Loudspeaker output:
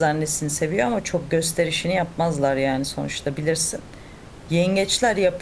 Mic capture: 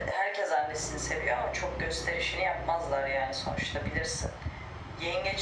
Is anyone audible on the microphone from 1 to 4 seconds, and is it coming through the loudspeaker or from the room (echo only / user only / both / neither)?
echo only